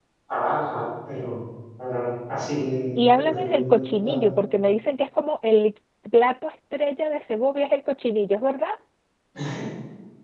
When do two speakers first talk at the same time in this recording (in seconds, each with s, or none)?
3.0 s